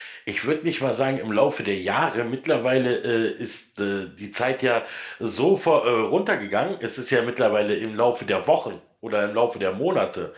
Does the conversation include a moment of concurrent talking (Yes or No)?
No